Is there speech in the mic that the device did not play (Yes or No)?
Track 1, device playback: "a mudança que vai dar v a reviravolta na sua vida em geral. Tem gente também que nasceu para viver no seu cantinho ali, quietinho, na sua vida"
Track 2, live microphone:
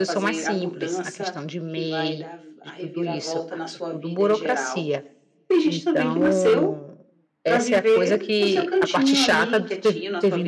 Yes